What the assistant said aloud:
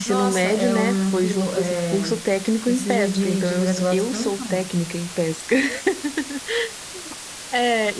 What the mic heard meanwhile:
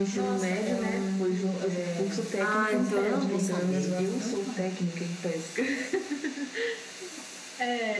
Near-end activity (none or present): present